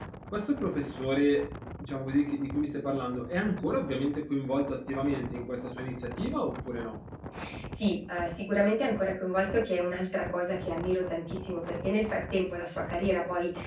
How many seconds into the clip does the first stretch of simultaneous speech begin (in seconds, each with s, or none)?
none